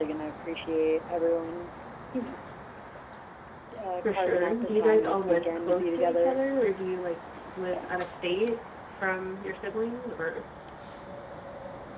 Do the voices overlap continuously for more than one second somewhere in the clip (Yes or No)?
Yes